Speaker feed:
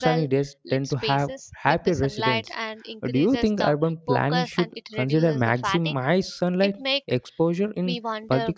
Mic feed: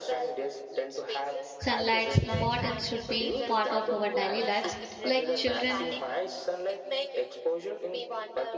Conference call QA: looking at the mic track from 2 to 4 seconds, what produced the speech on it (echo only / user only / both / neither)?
both